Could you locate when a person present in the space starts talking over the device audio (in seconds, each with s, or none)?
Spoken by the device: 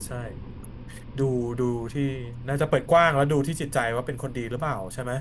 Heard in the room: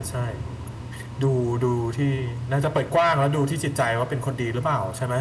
none